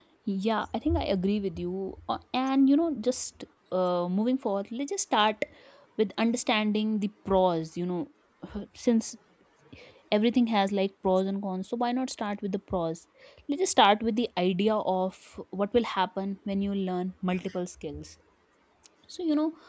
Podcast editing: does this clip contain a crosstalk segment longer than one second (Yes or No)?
No